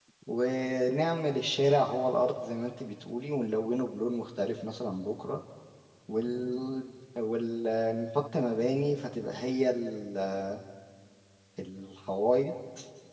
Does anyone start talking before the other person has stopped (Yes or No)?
No